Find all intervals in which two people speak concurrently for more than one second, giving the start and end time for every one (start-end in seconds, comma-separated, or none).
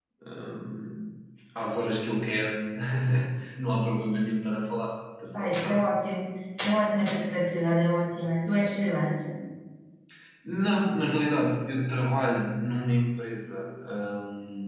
none